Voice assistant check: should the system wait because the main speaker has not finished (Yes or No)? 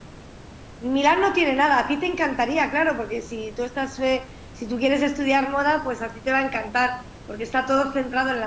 Yes